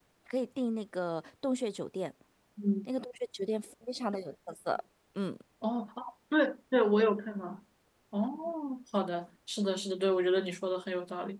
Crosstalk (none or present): none